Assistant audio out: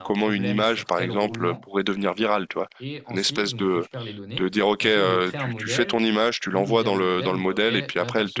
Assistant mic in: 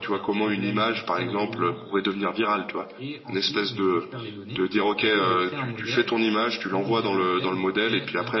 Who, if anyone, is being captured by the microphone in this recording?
echo only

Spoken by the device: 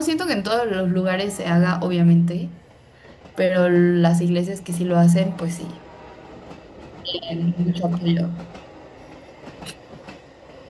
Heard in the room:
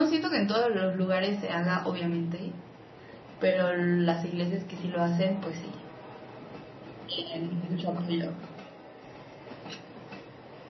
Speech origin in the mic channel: echo only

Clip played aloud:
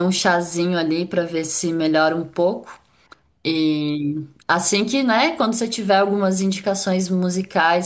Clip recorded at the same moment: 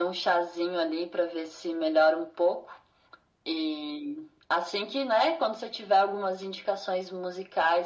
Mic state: echo only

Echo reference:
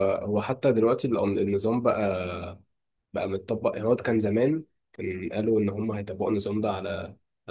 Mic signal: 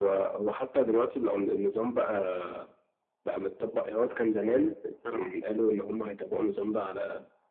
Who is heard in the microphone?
both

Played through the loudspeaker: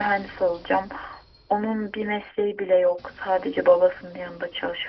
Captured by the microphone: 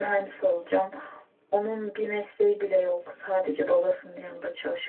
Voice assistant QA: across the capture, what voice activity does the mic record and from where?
echo only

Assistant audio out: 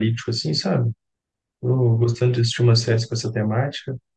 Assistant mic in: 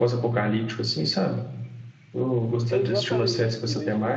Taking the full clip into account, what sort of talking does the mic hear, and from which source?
both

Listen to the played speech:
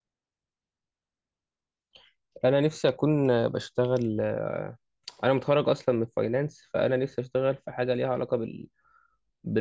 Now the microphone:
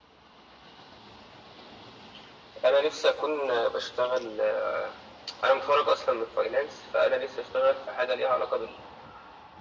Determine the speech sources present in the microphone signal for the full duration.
echo only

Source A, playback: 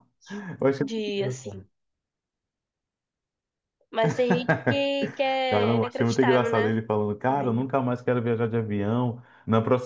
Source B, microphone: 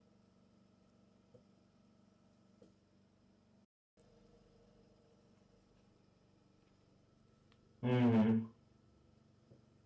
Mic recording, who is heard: user only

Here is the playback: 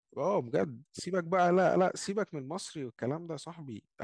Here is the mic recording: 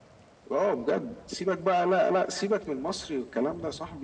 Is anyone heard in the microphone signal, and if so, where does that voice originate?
echo only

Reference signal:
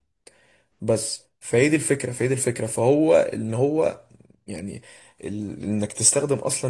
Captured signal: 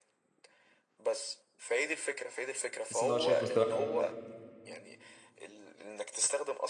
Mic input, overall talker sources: both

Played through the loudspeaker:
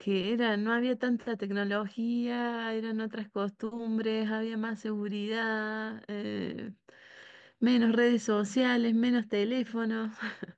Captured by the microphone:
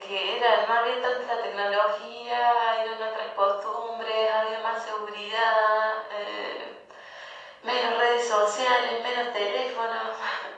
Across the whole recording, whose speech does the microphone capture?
echo only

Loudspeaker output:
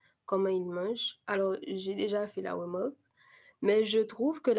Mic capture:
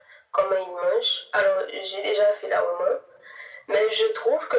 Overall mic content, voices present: echo only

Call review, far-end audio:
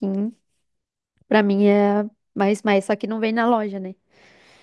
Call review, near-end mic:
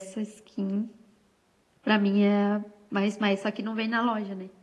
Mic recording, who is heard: echo only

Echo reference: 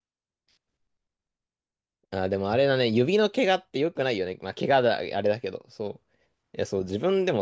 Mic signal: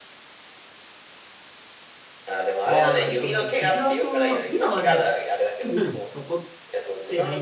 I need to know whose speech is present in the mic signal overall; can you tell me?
both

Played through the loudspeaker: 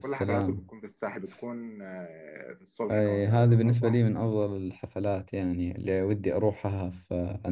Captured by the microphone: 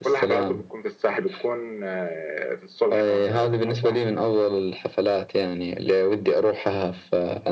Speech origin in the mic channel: echo only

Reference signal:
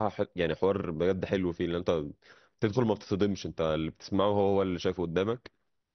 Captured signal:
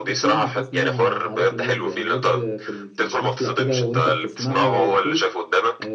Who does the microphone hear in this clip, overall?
both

